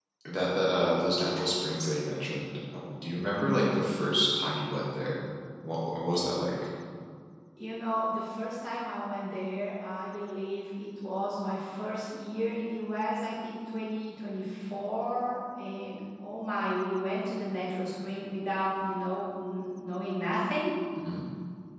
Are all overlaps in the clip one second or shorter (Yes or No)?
Yes